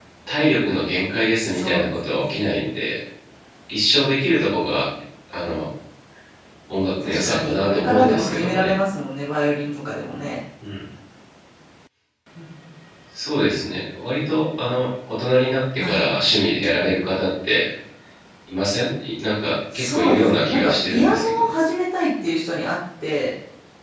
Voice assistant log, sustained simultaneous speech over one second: present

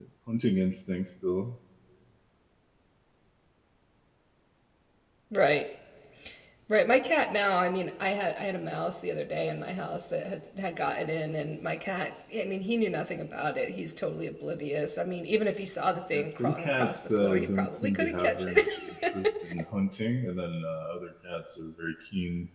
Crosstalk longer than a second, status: present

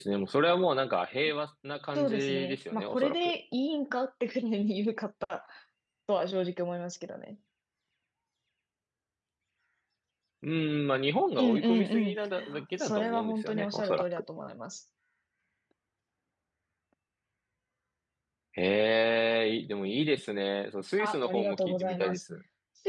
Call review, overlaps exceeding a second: present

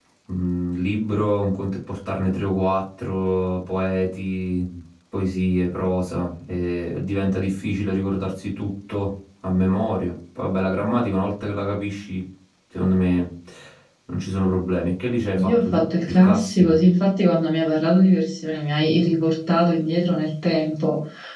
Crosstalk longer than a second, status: present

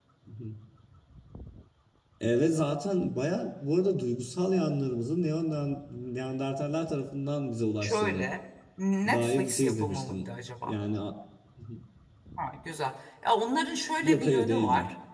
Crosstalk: present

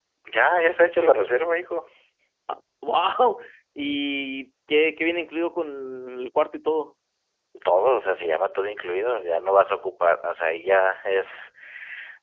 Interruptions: none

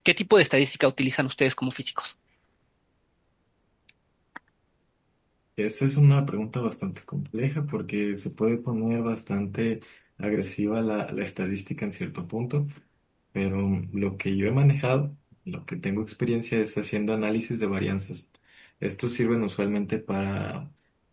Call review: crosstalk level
none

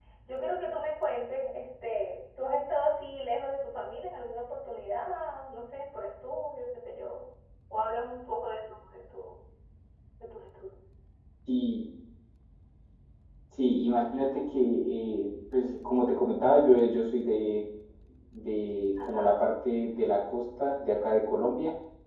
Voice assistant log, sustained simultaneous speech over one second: none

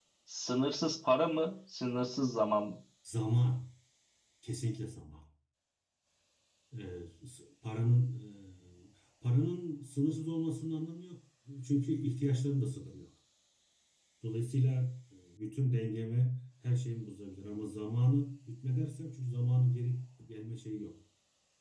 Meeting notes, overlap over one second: none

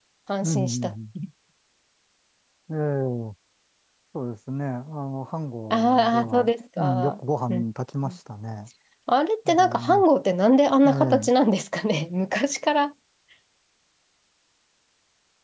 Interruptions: present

